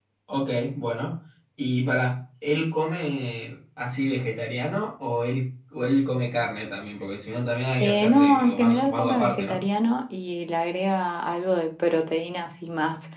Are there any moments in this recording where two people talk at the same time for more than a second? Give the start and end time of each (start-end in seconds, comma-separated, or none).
7.8-9.6